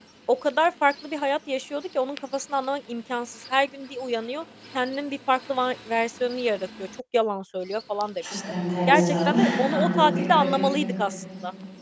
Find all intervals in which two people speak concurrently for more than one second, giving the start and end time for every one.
8.9-10.7

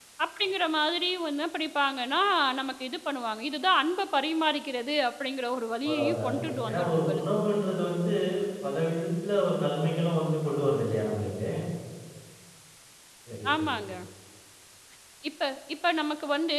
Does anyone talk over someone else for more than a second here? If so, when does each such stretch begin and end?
5.9-7.2

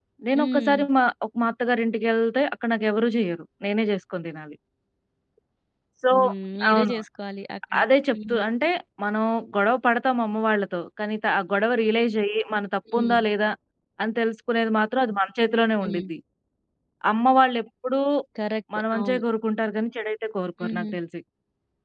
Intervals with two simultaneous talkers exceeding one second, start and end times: none

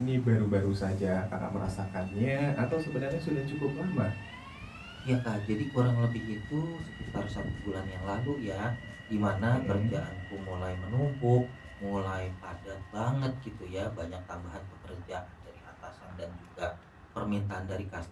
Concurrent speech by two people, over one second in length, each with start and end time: none

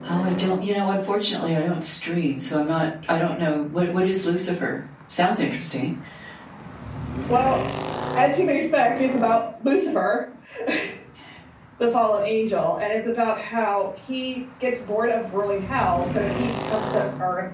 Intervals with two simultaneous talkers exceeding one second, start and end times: none

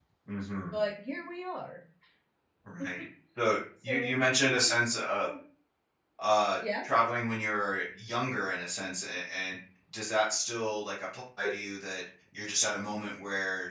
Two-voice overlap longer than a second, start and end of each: 3.9-5.3

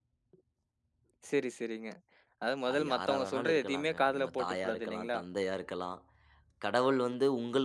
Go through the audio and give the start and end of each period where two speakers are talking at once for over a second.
2.7-5.2

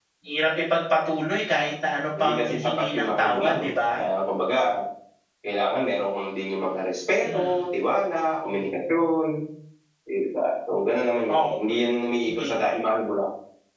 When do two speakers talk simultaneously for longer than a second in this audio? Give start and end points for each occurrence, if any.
2.2-4.0

